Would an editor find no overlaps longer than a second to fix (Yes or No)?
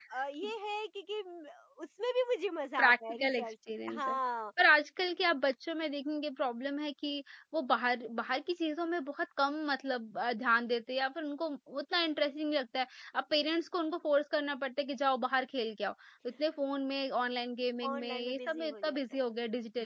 No